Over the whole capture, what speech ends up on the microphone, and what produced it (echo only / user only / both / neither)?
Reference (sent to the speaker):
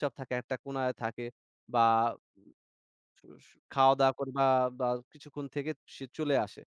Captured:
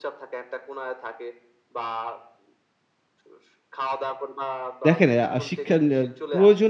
both